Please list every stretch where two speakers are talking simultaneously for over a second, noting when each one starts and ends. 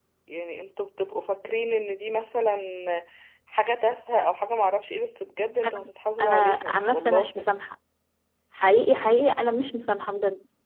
6.2-7.4

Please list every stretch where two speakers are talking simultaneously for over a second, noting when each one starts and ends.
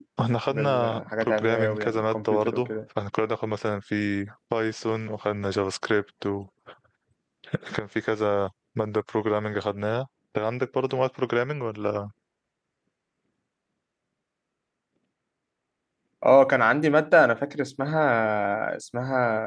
0.5-2.7

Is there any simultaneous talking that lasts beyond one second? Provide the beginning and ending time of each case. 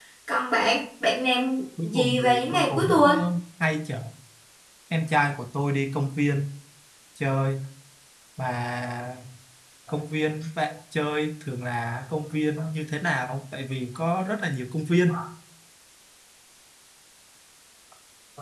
1.8-3.1

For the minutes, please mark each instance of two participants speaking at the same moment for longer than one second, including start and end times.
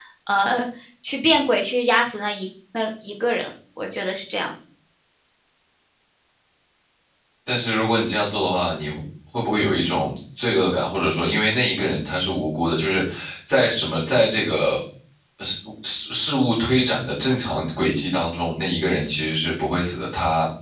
none

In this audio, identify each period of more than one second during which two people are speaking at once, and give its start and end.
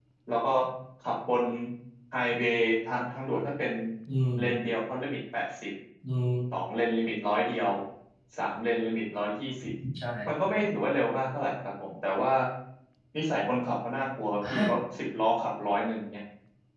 none

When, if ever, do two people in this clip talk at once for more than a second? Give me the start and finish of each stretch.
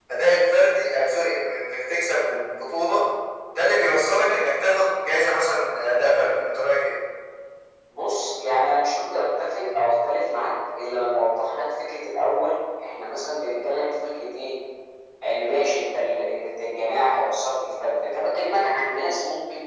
none

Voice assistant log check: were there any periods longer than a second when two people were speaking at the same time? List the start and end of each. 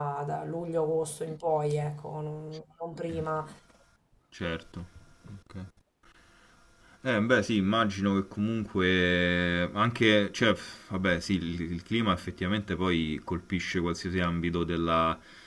none

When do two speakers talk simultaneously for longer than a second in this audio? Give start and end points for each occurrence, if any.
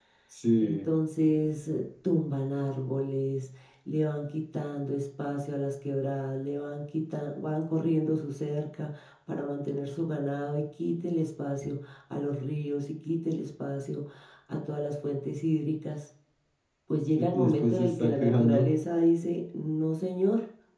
17.3-18.7

